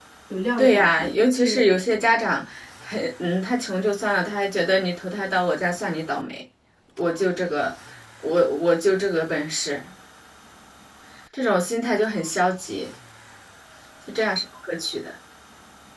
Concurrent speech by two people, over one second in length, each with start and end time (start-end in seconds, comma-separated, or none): 0.6-2.2